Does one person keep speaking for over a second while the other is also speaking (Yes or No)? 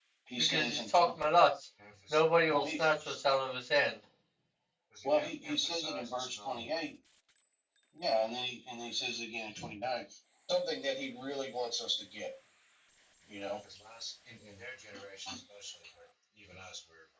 Yes